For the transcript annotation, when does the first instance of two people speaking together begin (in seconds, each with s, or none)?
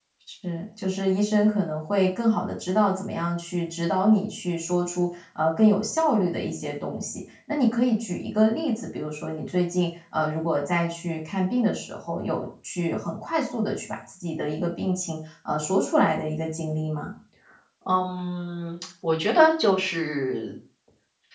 none